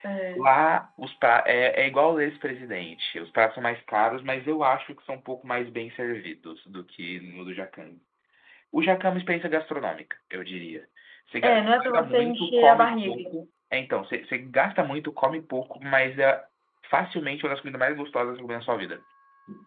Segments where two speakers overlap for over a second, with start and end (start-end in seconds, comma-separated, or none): 11.4-13.3